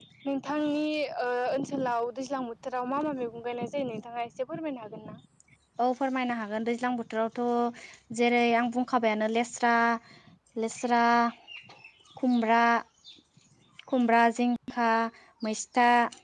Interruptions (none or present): none